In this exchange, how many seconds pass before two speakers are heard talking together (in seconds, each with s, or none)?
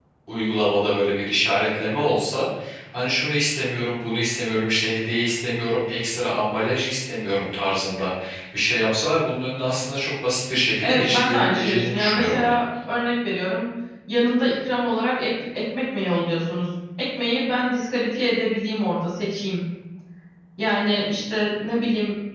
10.8 s